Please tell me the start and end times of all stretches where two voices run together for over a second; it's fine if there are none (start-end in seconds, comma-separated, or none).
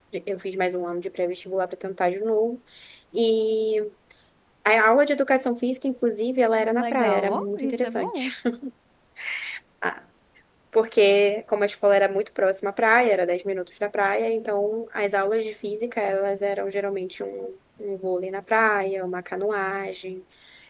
6.7-8.3